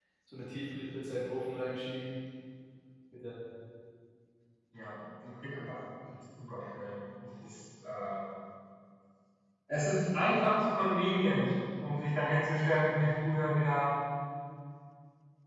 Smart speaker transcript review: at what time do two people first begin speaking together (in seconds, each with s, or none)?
none